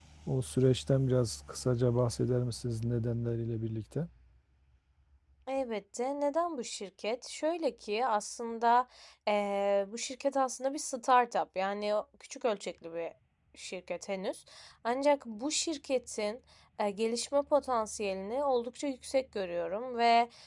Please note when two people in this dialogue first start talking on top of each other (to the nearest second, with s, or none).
none